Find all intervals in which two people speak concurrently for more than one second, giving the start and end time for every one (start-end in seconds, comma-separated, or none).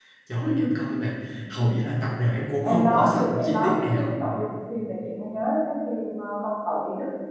2.6-4.2